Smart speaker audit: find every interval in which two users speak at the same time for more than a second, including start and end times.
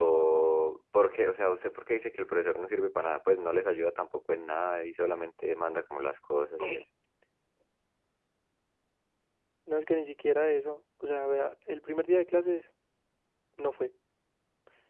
none

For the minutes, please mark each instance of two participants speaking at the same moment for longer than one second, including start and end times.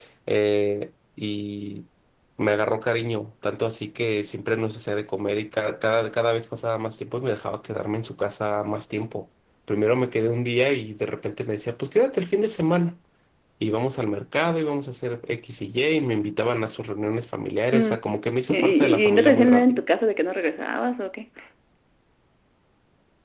18.5-19.8

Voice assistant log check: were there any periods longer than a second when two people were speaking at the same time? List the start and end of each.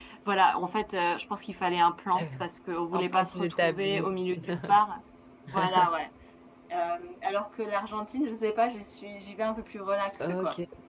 2.9-4.1

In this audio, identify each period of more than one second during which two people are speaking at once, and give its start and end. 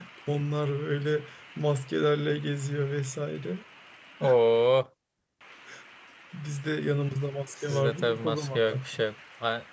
7.7-9.0

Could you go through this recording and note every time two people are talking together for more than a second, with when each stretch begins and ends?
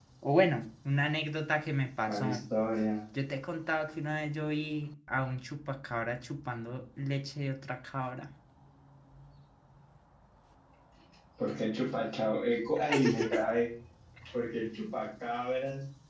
none

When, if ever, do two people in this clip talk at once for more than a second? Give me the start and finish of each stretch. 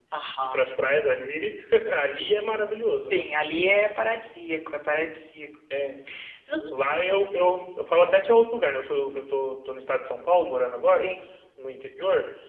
none

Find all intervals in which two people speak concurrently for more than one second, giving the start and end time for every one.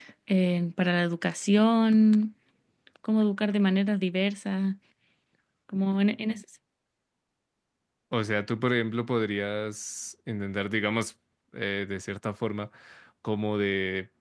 none

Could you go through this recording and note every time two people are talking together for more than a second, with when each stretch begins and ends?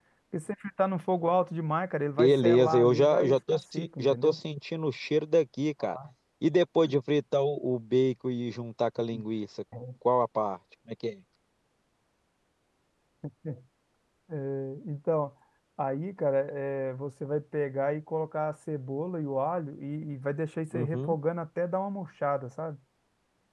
2.2-4.4

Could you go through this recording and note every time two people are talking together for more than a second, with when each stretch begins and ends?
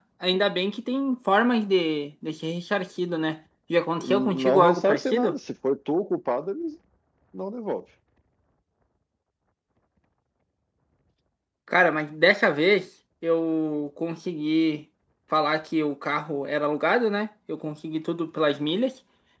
4.0-5.4

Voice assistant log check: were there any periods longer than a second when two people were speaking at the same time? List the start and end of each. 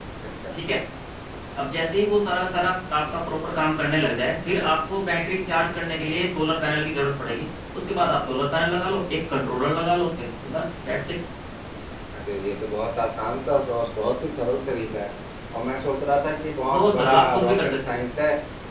16.7-18.0

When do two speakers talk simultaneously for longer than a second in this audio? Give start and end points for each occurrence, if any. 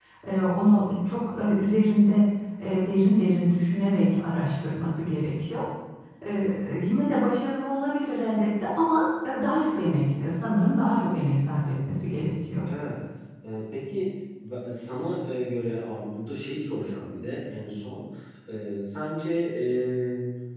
none

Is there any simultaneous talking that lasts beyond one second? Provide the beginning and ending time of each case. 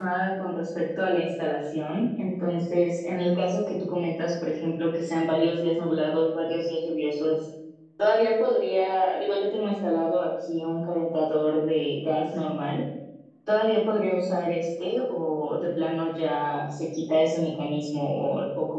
none

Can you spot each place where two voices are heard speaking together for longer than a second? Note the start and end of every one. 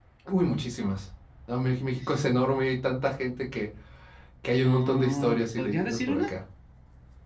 4.7-6.3

